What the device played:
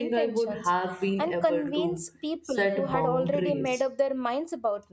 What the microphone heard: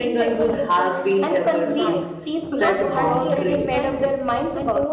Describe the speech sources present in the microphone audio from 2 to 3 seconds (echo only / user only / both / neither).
both